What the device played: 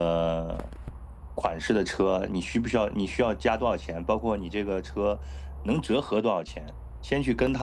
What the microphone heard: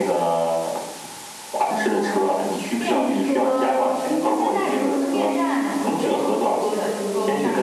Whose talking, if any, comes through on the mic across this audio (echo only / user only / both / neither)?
both